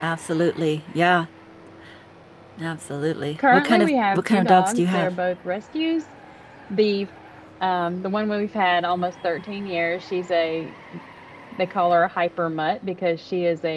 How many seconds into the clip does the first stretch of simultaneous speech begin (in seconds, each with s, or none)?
3.4 s